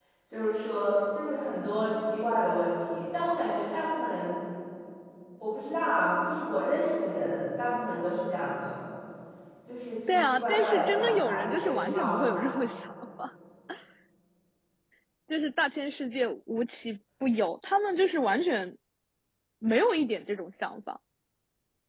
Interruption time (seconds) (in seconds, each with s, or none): 10.1 s